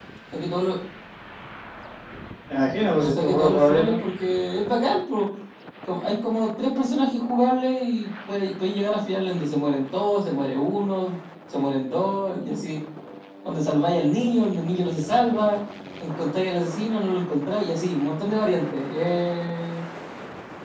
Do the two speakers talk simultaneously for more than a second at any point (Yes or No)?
Yes